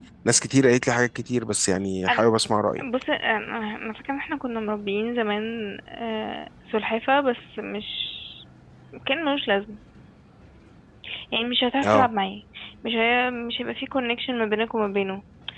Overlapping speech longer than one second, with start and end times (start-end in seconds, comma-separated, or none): none